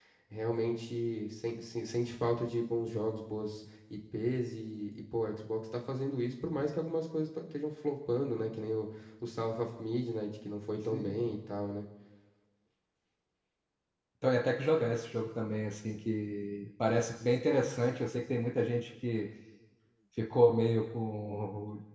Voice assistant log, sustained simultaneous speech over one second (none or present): none